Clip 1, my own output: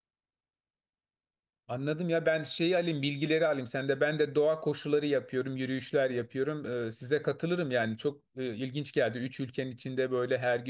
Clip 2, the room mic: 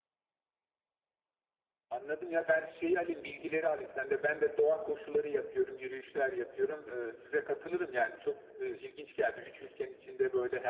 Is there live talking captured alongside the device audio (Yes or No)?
No